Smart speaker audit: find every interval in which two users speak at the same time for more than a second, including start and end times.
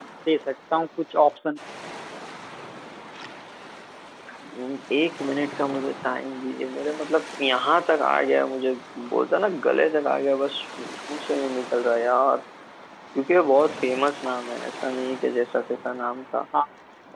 none

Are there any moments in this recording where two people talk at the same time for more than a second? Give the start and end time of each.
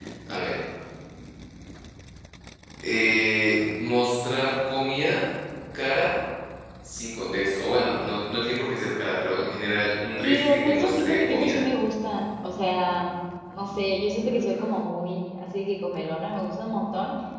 10.2-11.6

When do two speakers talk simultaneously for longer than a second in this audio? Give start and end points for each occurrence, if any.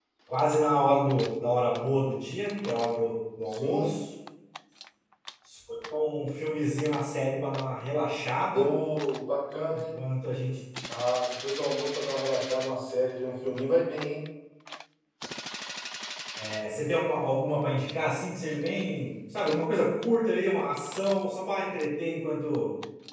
none

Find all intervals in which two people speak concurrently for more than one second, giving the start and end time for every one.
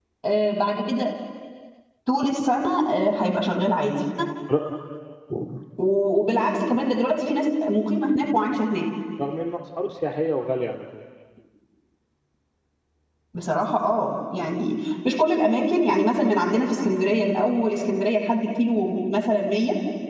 none

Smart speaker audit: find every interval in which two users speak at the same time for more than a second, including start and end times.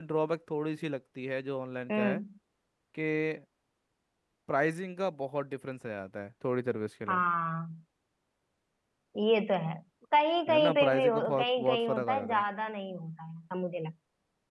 10.5-12.4

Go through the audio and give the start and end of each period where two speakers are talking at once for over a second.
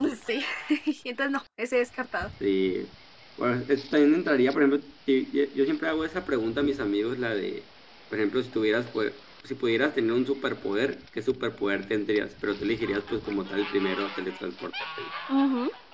none

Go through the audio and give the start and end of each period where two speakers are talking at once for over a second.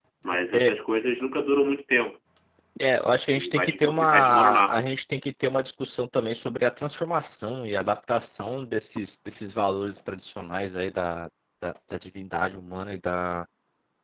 3.4-4.7

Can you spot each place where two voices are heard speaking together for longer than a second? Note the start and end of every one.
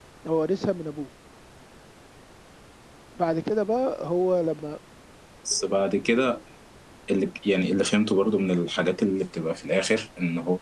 none

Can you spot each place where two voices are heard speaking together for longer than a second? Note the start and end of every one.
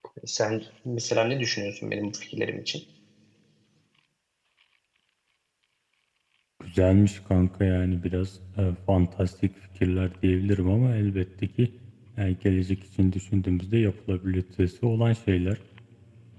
none

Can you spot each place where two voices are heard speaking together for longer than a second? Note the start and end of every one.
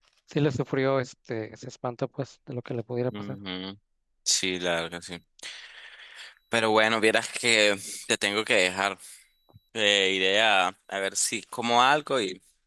none

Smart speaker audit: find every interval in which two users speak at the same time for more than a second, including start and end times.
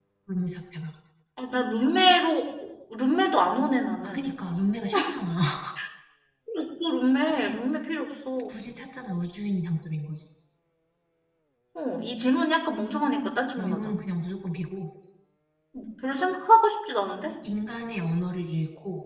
none

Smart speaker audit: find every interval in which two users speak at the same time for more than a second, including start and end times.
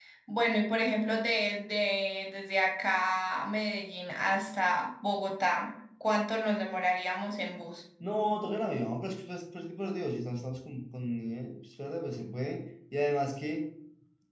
none

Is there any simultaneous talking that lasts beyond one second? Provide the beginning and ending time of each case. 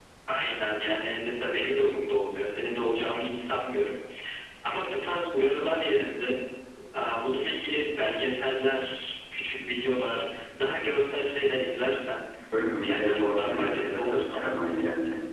12.8-14.5

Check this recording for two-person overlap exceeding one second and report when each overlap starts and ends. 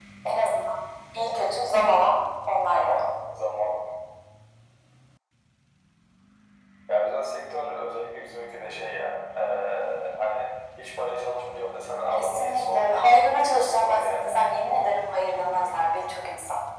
12.1-14.3

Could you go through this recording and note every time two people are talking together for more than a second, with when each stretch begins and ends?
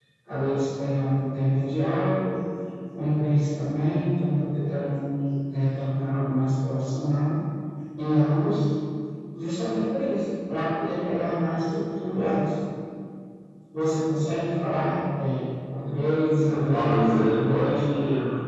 16.4-17.7

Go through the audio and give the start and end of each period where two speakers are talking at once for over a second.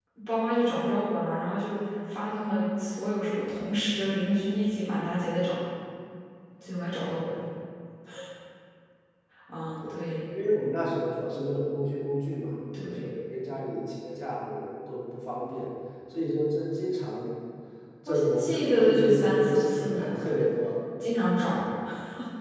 18.1-20.2

